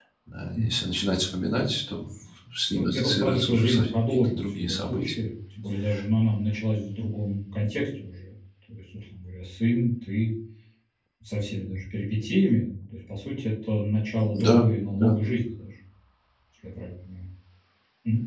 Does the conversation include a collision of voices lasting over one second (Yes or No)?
Yes